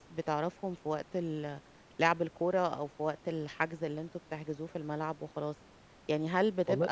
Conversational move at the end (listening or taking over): listening